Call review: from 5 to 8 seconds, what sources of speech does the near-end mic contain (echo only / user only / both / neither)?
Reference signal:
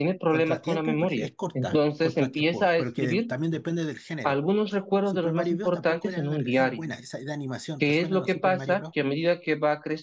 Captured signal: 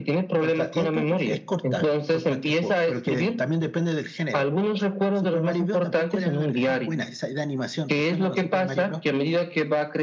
echo only